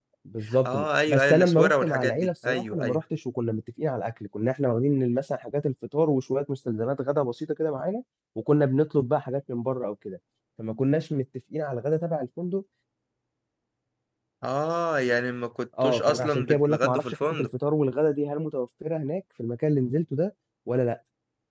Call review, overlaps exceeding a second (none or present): present